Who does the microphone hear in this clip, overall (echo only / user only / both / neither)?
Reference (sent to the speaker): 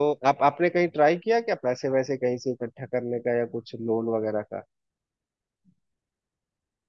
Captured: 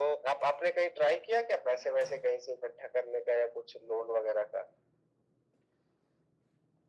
echo only